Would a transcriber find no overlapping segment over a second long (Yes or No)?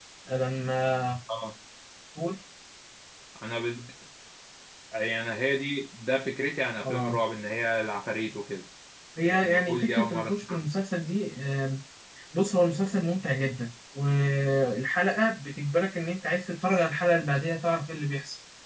No